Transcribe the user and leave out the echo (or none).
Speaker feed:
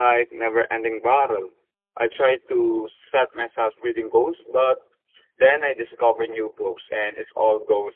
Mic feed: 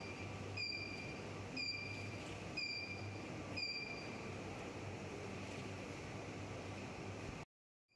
none